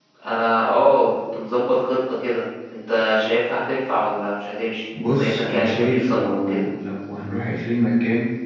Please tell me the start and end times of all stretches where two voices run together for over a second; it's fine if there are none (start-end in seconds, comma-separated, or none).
5.1-6.6